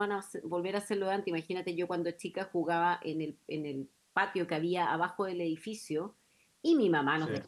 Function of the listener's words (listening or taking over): listening